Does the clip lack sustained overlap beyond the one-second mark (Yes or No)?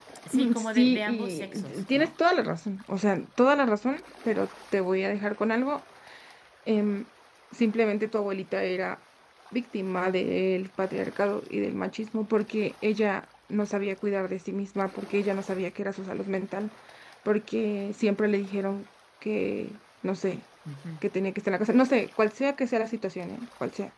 No